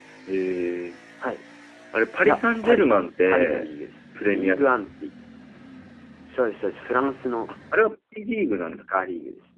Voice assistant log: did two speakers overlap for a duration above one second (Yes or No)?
Yes